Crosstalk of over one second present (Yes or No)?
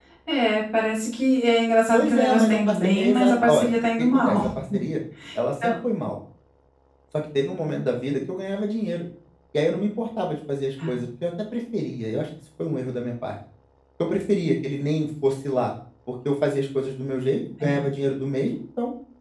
Yes